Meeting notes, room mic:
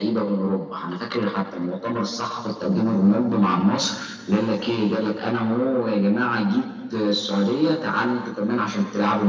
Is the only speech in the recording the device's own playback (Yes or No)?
Yes